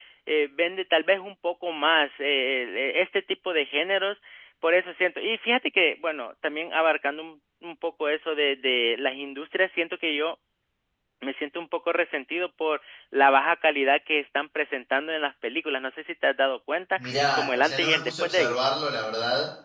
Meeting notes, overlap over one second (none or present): present